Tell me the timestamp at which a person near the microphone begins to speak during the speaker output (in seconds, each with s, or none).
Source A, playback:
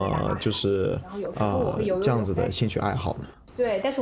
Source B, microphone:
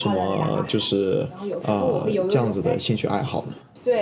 none